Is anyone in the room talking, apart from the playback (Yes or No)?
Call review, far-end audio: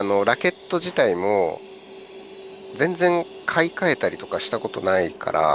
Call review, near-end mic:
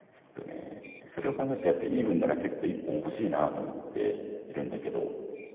Yes